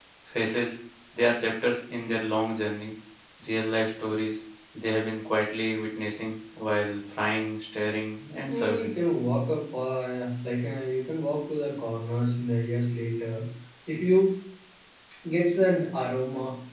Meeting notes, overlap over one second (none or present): none